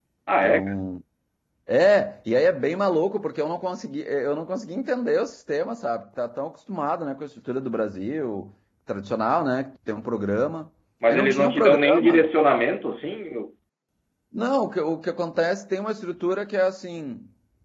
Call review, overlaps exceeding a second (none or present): present